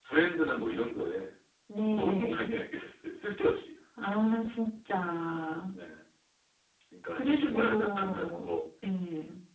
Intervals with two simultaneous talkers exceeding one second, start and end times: 7.2-8.6

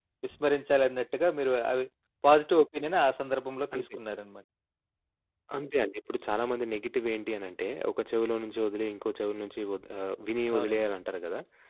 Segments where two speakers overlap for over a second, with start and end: none

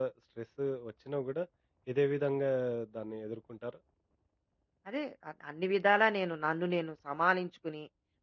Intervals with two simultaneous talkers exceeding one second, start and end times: none

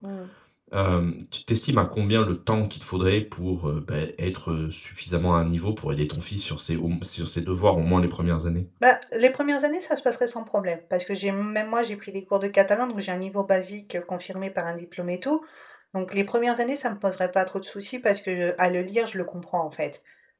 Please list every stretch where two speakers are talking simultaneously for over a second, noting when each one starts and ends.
none

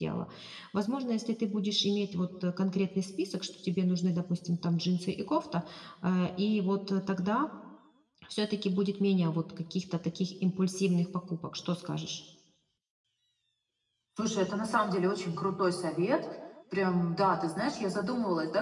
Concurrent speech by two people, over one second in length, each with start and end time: none

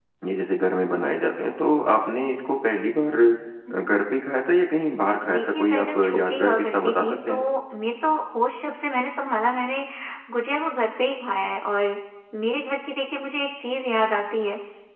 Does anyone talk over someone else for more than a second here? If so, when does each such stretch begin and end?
5.3-7.5

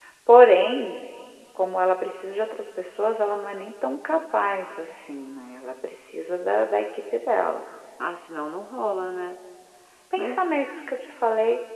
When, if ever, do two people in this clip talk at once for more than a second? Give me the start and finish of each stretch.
none

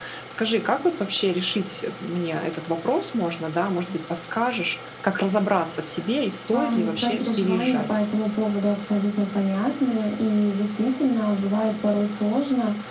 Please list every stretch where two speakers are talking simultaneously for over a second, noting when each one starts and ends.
6.6-8.0

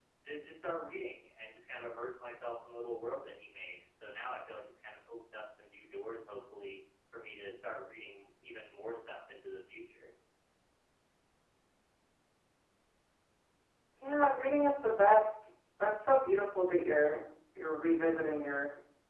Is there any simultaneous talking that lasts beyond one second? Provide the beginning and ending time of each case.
none

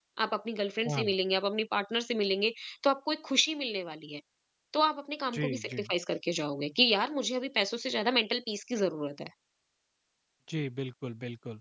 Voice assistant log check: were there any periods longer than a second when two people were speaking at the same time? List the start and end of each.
none

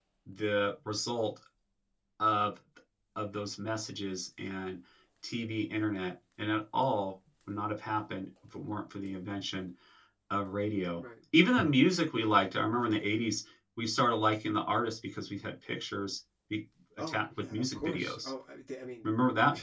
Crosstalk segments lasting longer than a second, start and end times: 17.0-18.3

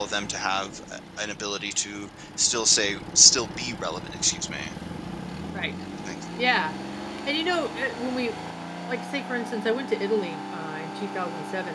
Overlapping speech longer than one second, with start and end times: none

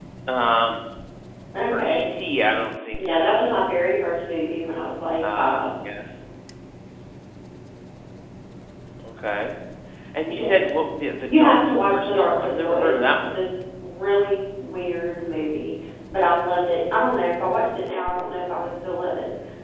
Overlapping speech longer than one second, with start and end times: 11.3-13.4

